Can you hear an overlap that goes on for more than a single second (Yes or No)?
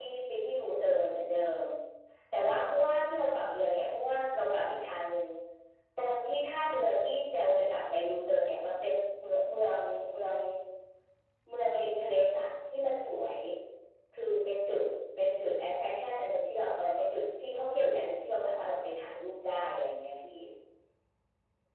No